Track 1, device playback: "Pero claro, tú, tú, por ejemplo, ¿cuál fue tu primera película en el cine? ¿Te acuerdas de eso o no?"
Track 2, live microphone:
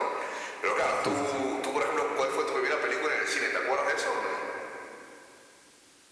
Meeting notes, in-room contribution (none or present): present